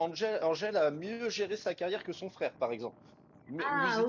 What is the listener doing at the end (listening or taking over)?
listening